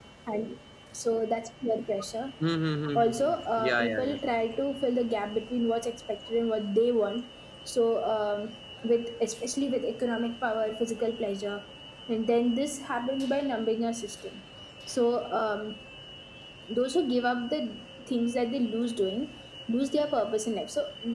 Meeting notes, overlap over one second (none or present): present